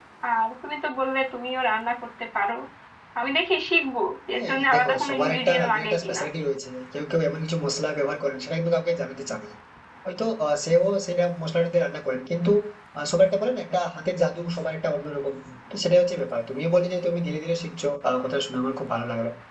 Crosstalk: present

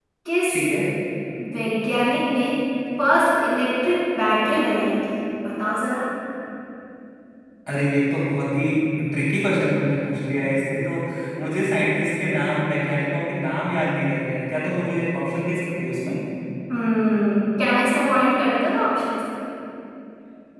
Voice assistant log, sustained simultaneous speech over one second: none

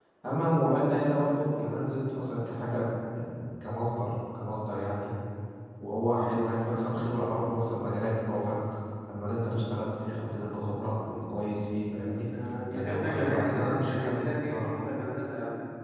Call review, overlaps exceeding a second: present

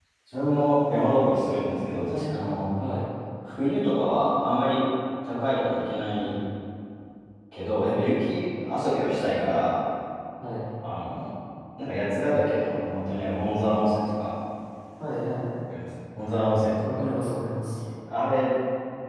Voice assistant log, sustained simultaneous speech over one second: none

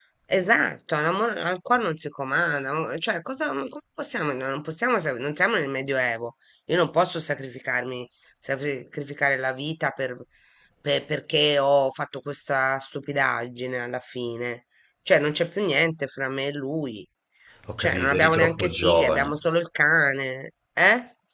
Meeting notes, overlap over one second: present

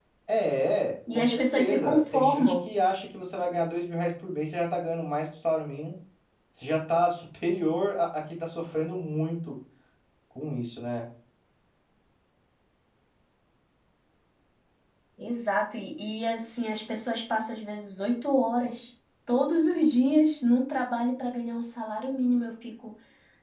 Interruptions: present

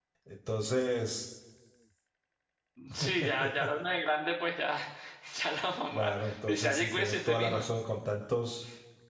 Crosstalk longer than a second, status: present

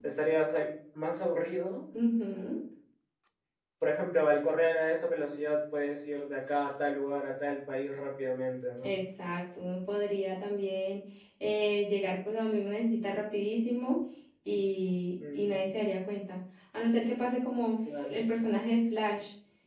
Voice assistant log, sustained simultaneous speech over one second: none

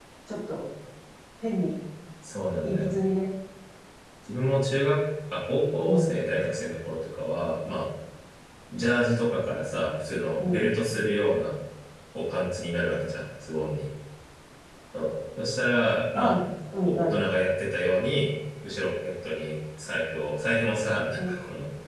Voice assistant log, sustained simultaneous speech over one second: none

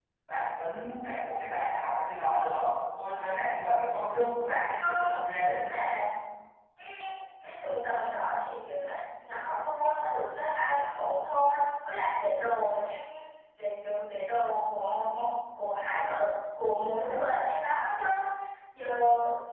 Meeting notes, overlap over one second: present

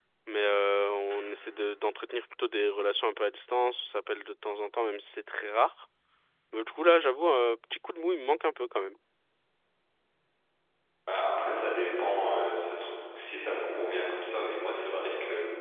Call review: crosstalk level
none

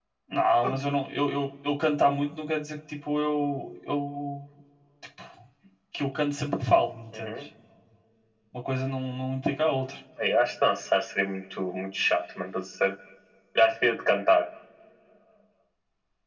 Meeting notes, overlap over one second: none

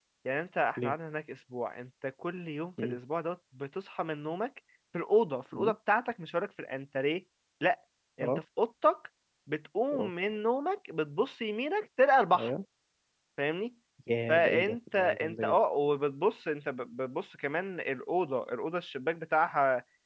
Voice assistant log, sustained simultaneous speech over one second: present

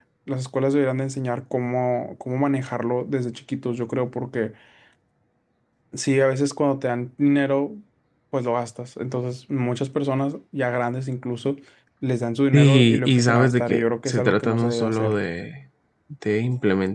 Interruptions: present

